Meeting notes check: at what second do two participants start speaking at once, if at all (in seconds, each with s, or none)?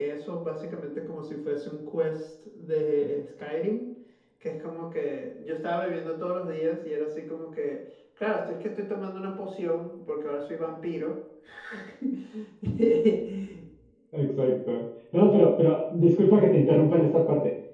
none